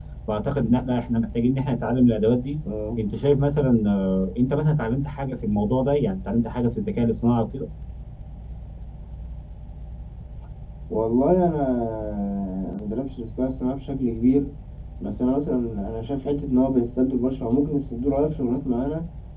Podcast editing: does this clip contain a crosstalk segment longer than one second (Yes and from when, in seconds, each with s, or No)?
No